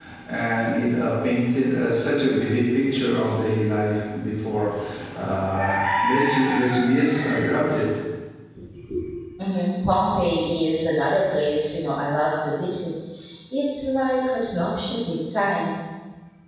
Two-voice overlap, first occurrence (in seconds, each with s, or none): none